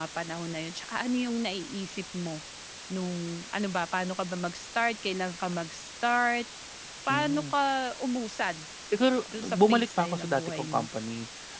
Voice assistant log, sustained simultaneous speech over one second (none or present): present